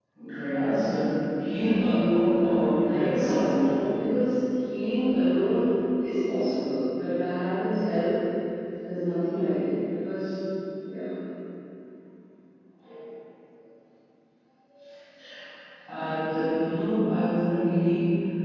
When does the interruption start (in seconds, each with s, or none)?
2.2 s